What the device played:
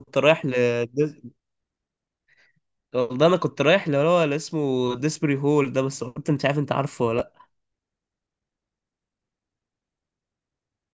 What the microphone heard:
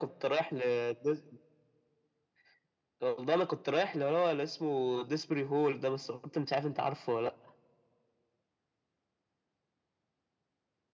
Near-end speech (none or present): none